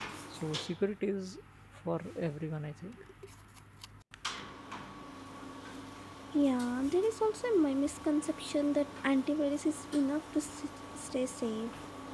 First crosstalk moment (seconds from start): none

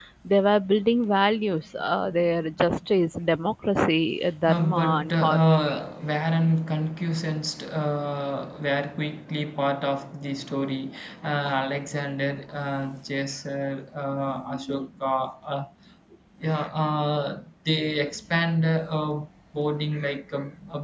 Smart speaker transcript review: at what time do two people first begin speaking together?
4.5 s

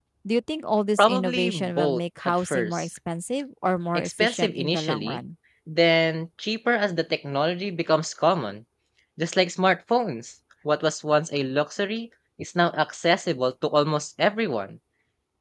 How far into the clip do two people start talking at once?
1.0 s

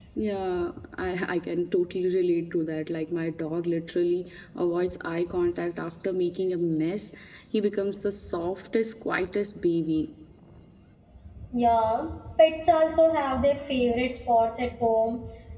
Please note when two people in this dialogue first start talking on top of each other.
none

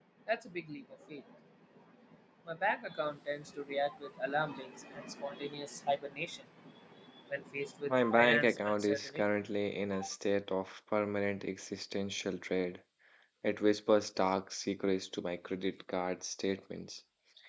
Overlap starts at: 7.9 s

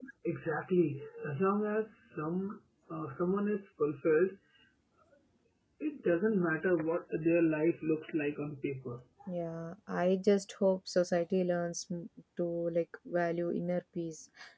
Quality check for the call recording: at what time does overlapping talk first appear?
none

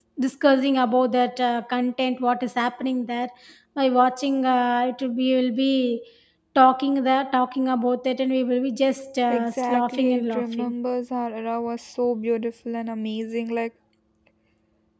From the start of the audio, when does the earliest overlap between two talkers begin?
9.3 s

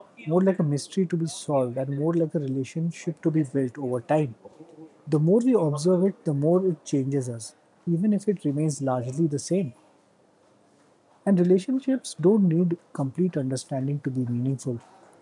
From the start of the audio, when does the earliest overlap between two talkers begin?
none

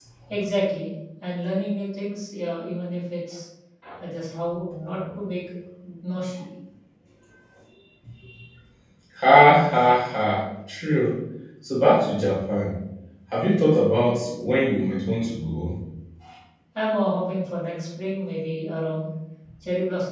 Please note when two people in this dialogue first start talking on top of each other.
none

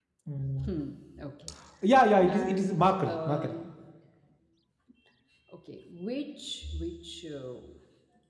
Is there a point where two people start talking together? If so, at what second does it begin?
2.2 s

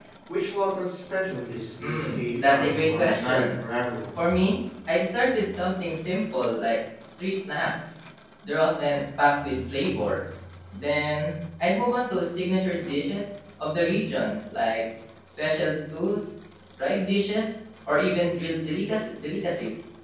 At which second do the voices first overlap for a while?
1.8 s

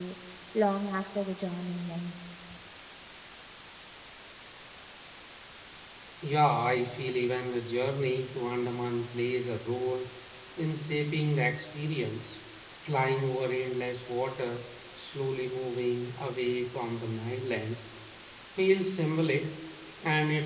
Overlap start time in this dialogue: none

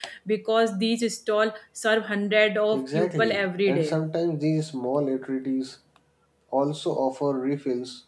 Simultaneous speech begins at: 2.7 s

